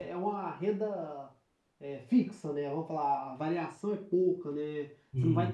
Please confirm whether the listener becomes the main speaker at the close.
No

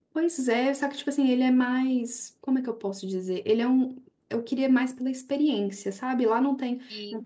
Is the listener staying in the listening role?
Yes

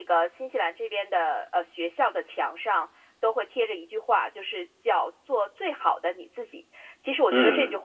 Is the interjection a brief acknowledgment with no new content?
Yes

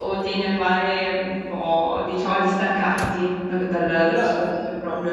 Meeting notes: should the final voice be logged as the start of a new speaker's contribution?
Yes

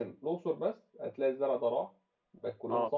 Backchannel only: Yes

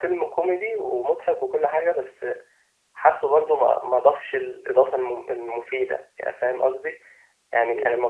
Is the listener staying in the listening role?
Yes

